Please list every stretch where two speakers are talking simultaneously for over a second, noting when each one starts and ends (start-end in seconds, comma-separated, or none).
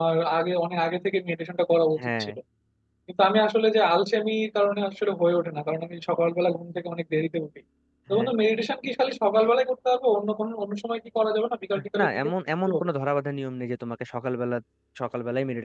none